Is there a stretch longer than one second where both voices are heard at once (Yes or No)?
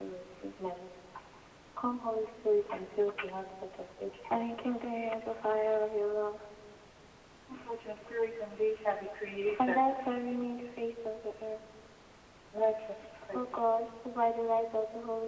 No